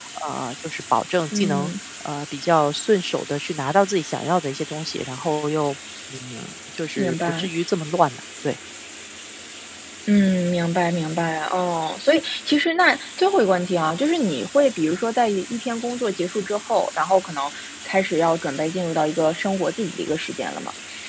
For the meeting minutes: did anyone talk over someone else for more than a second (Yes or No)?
No